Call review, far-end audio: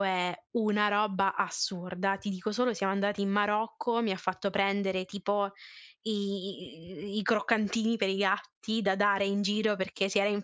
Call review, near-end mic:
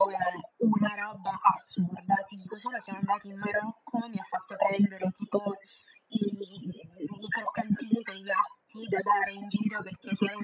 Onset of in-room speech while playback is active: none

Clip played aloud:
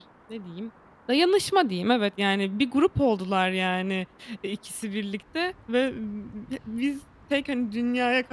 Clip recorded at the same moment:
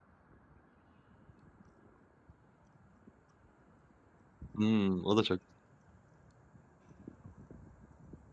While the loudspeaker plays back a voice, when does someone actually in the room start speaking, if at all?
5 s

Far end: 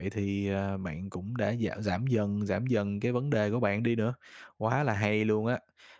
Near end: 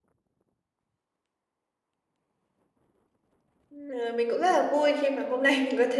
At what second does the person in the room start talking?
4 s

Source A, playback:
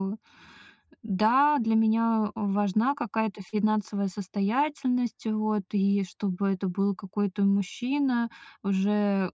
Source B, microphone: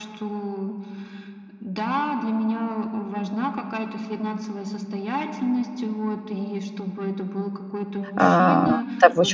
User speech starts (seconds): 8 s

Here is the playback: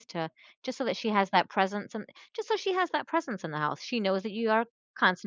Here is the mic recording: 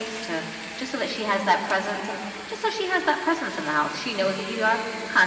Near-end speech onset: none

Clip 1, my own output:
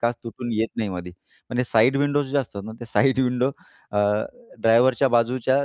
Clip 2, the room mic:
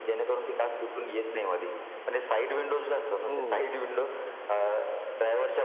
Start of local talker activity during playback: 3 s

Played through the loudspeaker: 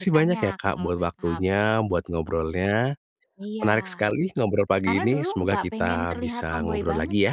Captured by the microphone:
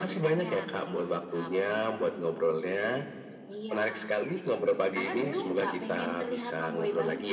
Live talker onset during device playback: none

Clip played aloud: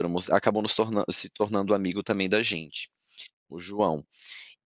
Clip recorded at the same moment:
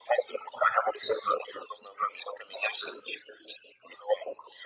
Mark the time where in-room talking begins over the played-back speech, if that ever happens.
none

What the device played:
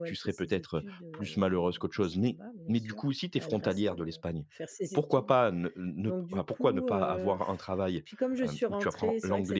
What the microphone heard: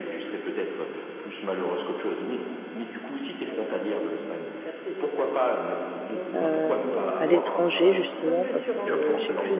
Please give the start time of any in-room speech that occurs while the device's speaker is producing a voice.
6 s

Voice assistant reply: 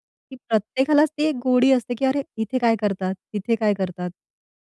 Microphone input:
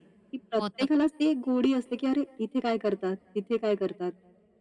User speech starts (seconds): 1 s

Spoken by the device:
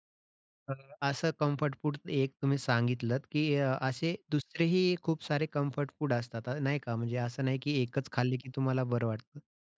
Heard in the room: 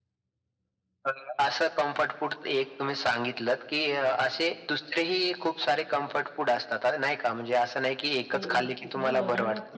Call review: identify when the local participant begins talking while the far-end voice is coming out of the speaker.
8 s

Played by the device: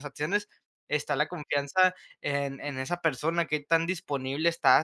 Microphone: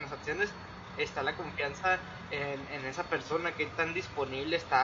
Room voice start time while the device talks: none

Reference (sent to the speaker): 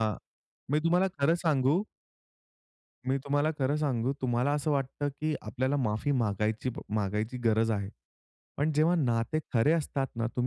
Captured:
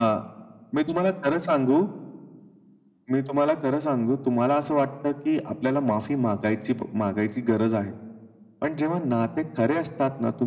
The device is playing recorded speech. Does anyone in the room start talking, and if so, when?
none

